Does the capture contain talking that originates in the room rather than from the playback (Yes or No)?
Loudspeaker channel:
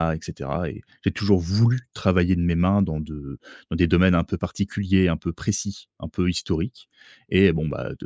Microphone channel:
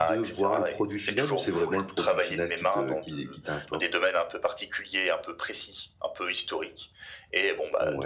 Yes